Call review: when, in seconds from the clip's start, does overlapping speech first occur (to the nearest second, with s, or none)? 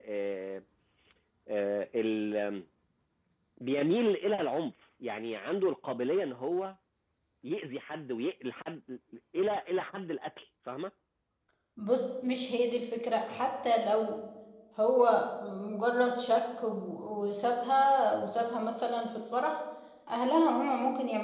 none